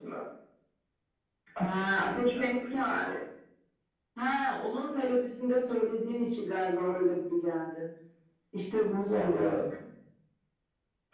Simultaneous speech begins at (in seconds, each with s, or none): 1.6 s